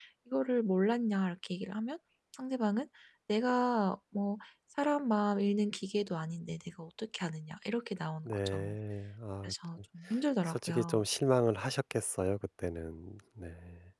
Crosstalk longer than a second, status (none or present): none